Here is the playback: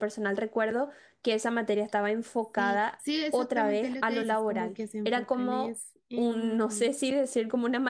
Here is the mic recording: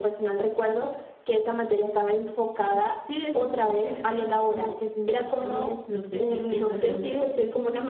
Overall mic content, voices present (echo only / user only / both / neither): both